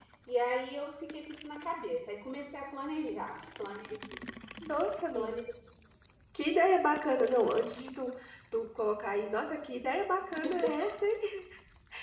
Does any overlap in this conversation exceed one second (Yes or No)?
No